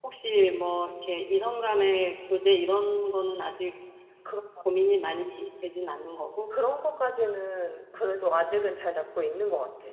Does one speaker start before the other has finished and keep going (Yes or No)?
No